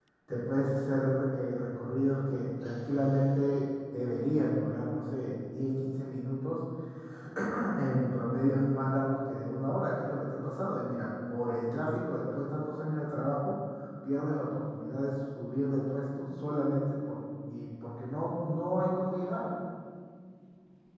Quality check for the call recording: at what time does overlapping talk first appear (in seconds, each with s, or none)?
none